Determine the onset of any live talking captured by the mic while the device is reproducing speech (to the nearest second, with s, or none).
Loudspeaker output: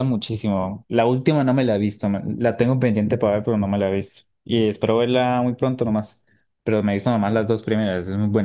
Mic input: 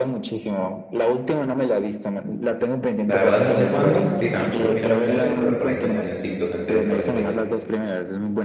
3 s